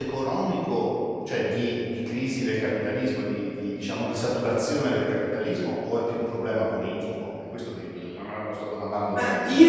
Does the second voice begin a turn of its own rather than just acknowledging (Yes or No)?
Yes